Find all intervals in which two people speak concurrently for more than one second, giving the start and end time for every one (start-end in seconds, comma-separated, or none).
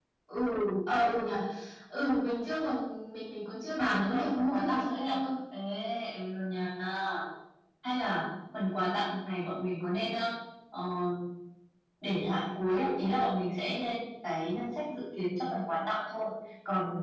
3.8-5.2